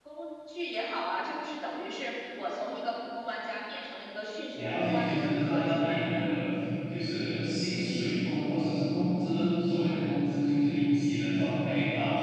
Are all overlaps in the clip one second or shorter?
No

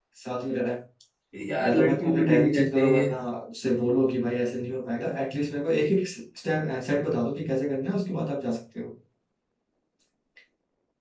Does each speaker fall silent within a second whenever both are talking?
No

